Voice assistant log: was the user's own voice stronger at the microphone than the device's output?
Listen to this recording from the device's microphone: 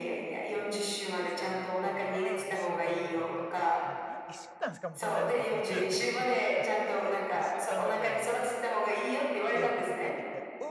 No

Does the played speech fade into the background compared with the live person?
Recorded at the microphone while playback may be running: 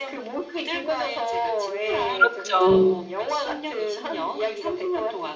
Yes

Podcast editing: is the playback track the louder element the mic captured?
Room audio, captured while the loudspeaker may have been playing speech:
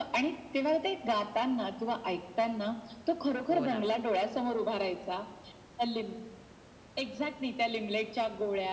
Yes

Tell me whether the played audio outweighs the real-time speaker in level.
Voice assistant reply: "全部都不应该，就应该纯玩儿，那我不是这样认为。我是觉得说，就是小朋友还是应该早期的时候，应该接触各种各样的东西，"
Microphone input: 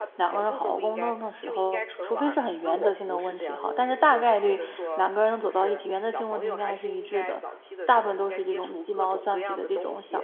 No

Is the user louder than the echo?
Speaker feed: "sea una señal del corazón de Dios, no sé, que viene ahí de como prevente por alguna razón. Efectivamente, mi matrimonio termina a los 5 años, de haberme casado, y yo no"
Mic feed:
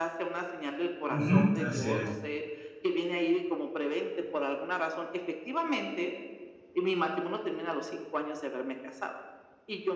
Yes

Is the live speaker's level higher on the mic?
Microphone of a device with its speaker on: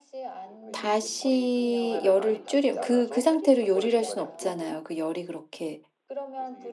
Yes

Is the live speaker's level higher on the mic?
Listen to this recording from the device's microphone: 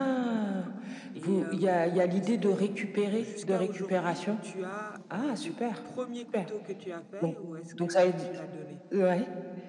No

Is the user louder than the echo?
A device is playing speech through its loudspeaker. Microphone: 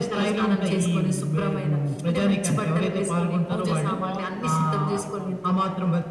No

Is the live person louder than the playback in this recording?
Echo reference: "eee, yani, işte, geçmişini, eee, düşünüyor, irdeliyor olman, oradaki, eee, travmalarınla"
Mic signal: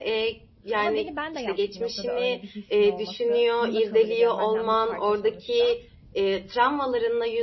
No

